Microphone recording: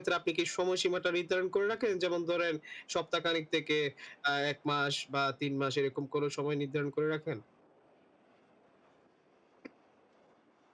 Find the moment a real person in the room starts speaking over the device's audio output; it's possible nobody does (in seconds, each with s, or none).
none